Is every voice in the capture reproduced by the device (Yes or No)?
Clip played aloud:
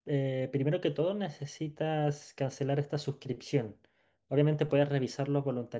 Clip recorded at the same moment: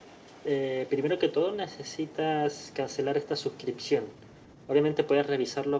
Yes